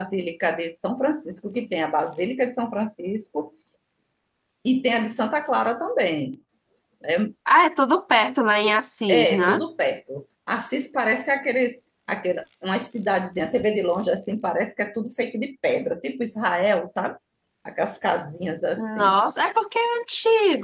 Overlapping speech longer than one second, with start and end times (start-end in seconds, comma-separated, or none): none